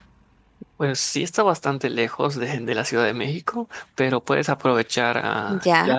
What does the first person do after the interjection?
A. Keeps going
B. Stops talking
A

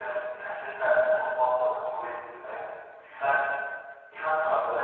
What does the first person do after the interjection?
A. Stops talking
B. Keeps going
B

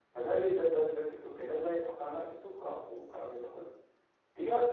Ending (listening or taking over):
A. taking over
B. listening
A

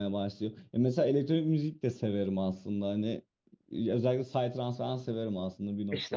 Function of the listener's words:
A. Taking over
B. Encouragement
A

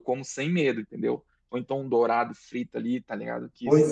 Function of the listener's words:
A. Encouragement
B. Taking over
B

